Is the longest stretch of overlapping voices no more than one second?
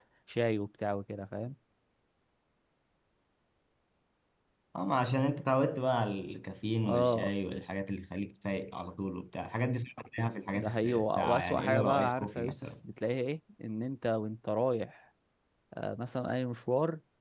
No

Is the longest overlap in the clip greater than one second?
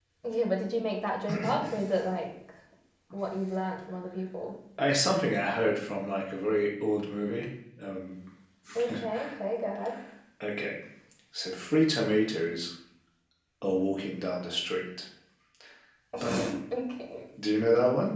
No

